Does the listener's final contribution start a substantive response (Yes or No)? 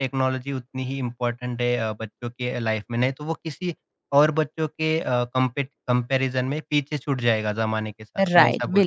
Yes